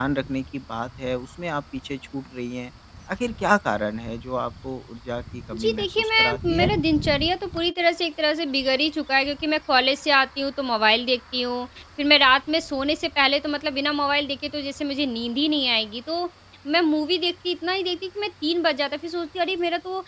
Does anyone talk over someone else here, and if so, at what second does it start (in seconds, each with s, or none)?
5.5 s